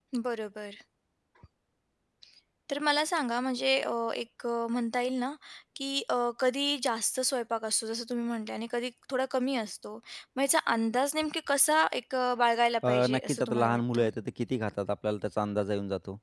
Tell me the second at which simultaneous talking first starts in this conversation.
12.8 s

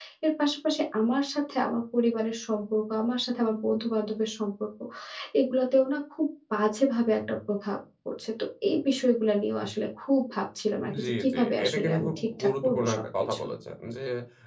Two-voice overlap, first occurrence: 10.9 s

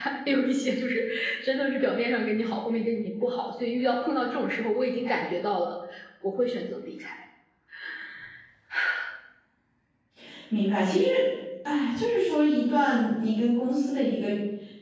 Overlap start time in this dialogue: none

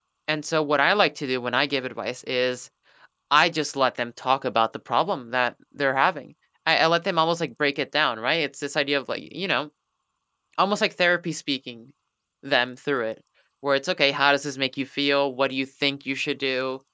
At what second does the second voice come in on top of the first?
none

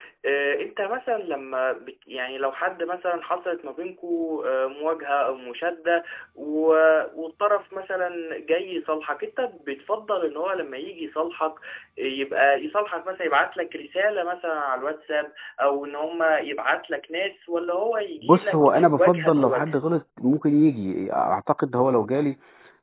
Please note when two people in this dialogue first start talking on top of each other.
18.2 s

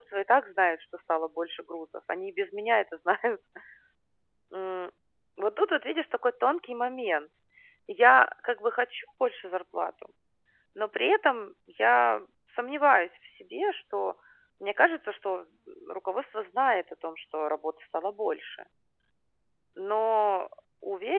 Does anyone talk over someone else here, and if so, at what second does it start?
none

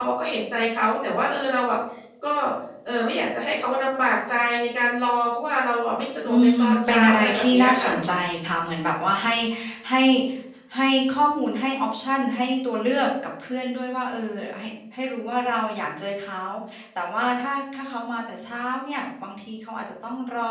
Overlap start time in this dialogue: 6.2 s

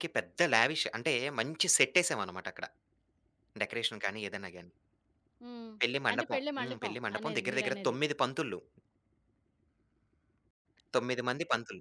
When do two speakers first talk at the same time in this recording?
6.1 s

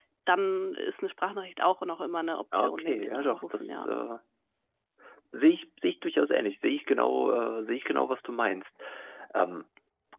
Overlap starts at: 2.5 s

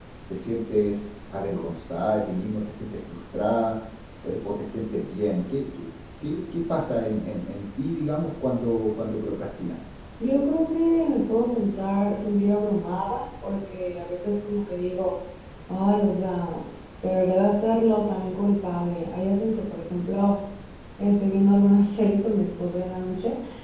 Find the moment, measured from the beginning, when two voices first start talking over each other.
none

